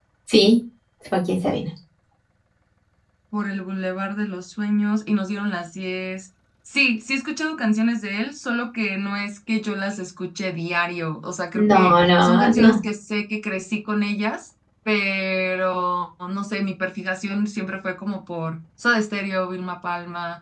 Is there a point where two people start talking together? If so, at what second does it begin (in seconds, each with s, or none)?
11.5 s